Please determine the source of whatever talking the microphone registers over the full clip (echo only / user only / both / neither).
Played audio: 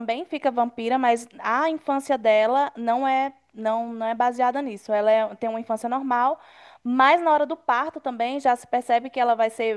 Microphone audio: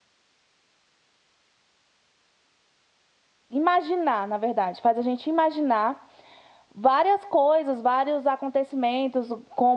user only